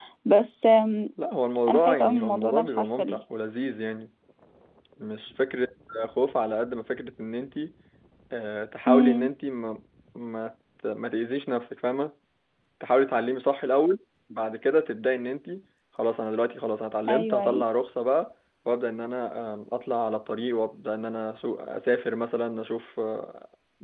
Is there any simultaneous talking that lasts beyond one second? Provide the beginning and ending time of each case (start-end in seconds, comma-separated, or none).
1.7-3.0